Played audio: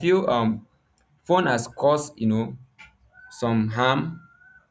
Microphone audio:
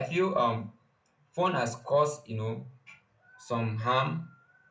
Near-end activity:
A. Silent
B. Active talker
A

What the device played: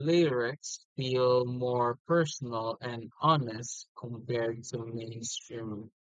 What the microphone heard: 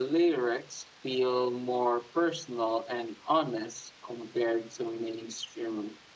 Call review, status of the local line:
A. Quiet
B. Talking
A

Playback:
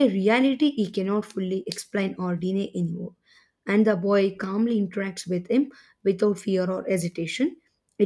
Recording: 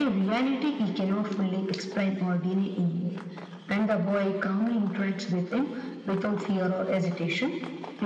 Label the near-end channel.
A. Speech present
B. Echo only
B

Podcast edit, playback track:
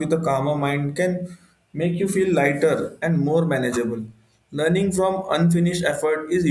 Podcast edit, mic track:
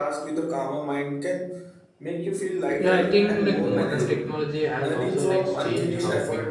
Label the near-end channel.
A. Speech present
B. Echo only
A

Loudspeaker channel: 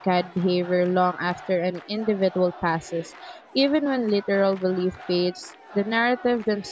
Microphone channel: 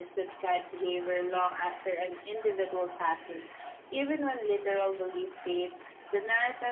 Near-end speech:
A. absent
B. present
A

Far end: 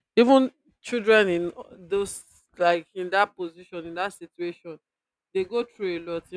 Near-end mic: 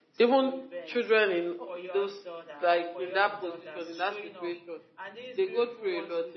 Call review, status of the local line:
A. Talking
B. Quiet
A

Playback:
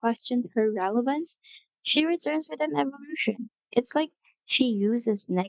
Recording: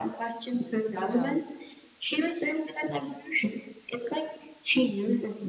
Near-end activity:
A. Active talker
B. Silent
A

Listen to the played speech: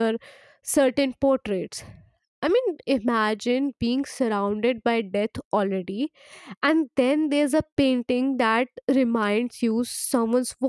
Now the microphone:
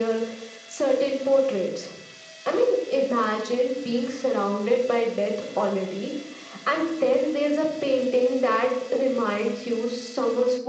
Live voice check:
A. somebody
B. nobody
B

